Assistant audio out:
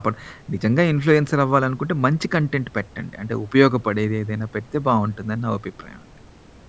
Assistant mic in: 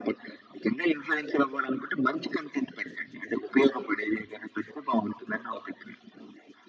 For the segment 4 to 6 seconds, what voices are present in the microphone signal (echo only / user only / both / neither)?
echo only